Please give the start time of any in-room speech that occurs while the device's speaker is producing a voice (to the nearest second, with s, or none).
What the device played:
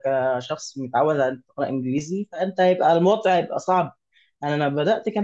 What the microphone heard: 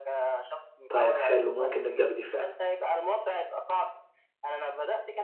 1 s